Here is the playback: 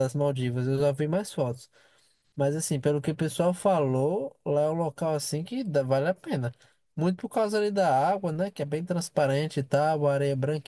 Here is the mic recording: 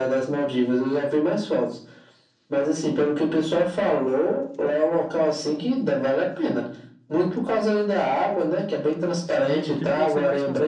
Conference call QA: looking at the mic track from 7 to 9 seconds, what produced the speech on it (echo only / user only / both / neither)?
echo only